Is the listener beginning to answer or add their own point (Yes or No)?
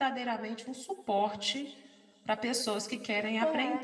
Yes